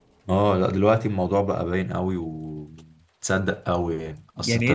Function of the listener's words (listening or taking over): listening